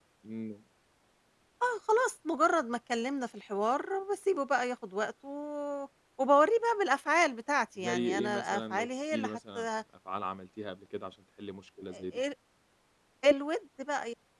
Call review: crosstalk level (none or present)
present